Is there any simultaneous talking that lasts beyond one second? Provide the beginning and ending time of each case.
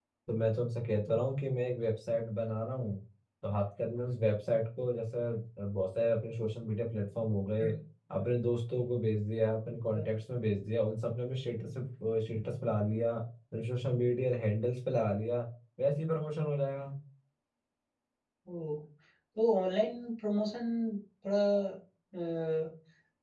none

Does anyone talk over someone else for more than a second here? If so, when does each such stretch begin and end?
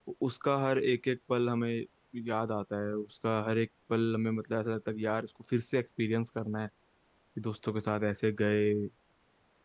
none

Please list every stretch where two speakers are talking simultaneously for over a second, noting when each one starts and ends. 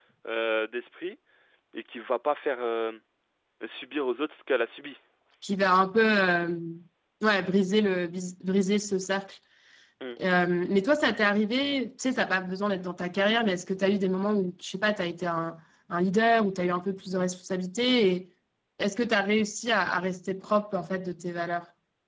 none

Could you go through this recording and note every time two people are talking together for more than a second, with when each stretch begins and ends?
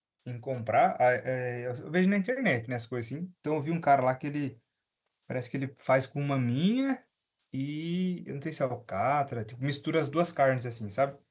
none

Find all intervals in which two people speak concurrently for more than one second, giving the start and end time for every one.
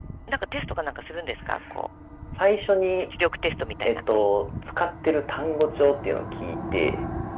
none

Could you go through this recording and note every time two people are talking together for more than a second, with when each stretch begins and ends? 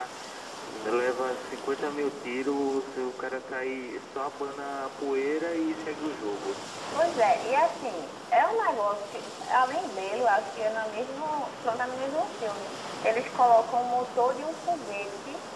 none

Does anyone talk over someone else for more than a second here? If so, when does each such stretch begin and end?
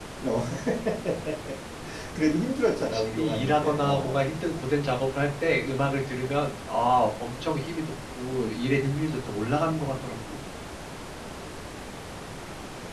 2.9-4.2

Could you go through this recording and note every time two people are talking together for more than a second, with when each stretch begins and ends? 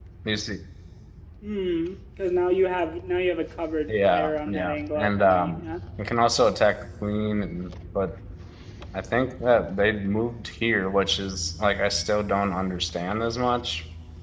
3.9-5.6

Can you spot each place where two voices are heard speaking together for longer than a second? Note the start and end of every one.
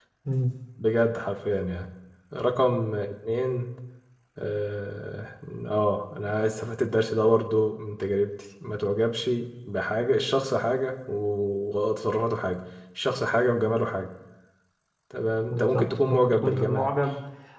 15.5-16.9

